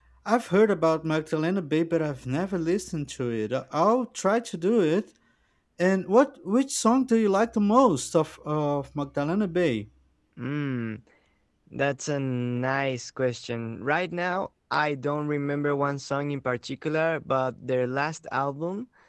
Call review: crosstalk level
none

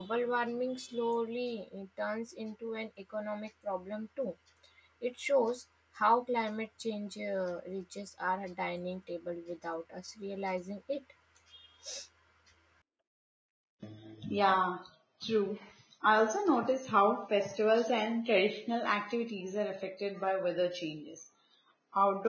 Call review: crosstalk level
none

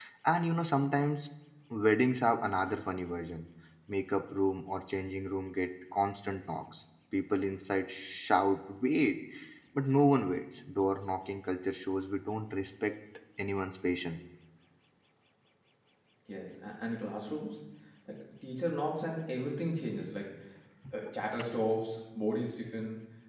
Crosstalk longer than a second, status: none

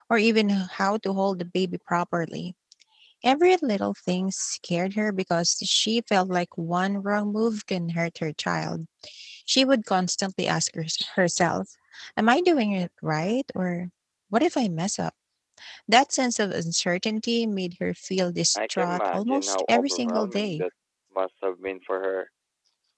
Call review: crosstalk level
present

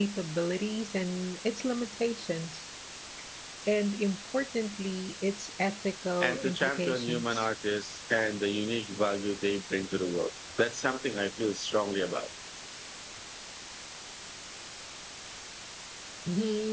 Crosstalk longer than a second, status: present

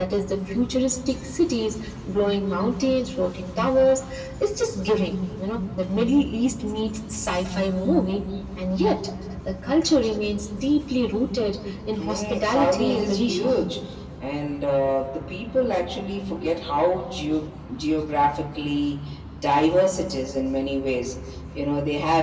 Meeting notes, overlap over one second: present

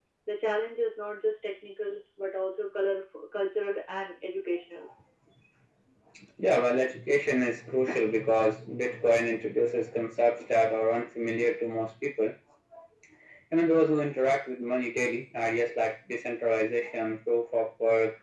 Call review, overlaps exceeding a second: none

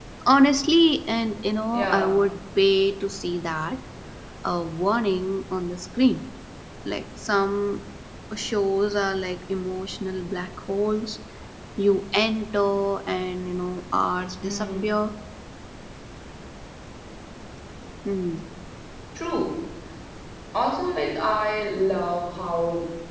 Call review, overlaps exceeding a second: none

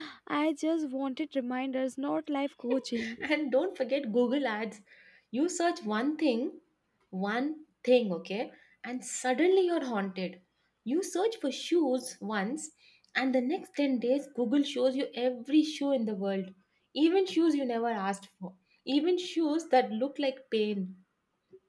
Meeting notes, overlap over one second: none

